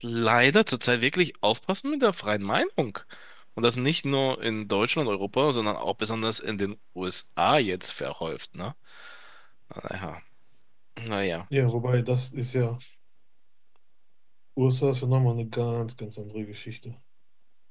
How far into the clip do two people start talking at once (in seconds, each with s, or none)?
none